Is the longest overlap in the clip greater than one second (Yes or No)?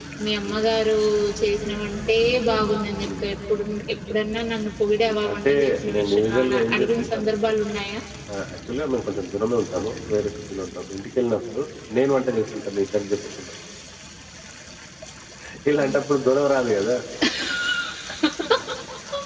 Yes